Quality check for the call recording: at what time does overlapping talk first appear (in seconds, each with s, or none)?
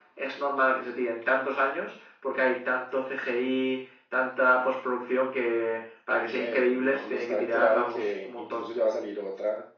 6.2 s